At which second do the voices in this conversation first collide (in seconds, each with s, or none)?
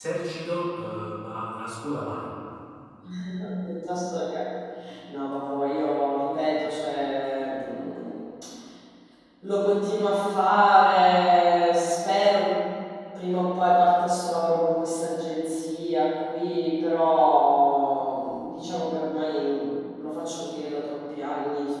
none